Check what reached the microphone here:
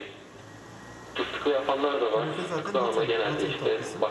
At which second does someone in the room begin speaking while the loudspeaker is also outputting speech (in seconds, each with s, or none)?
2.1 s